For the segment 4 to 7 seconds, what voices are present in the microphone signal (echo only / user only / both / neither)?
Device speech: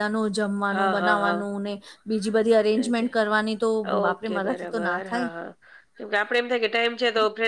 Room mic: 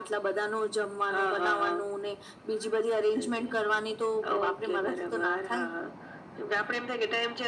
echo only